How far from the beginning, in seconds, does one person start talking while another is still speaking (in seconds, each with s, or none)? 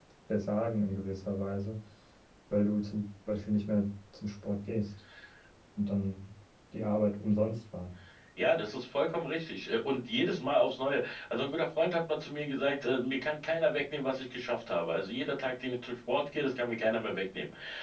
none